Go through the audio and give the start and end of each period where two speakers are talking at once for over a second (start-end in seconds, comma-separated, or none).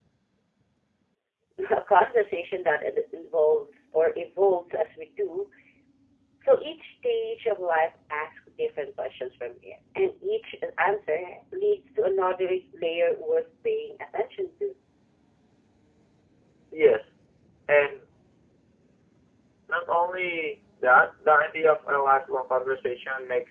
none